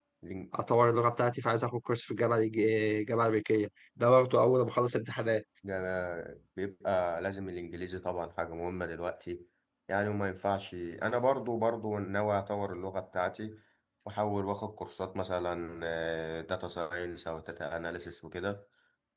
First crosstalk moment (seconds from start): none

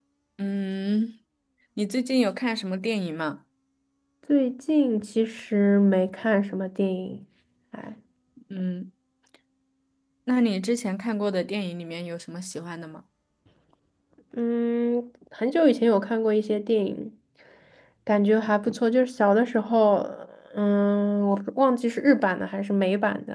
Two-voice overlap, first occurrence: none

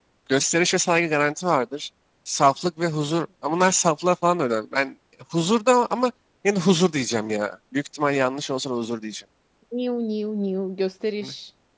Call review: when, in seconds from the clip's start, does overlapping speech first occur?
none

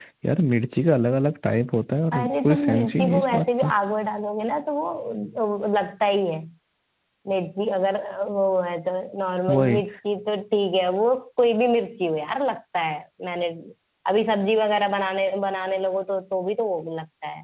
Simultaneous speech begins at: 2.1 s

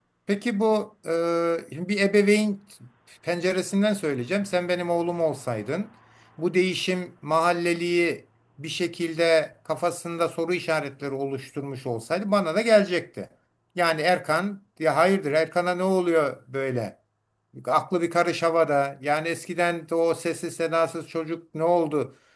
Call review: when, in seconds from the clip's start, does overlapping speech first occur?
none

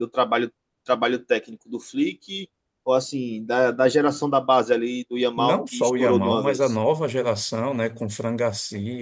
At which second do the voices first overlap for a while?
5.4 s

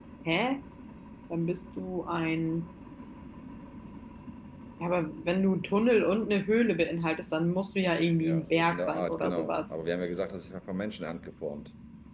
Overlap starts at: 8.2 s

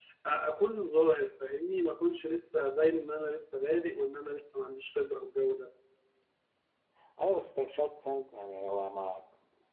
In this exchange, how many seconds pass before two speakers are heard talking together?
none

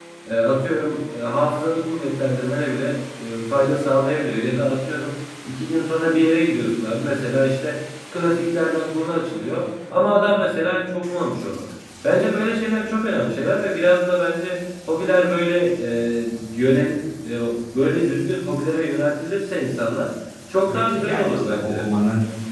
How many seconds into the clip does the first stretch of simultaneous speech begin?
20.7 s

